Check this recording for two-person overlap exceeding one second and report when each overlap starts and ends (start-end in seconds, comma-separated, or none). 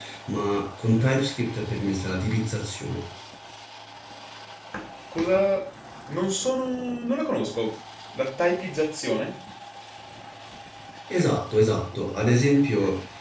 none